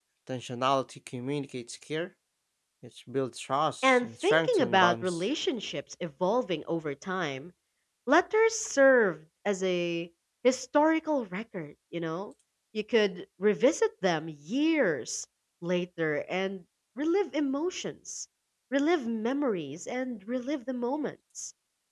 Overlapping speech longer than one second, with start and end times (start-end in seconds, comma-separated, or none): 3.8-5.2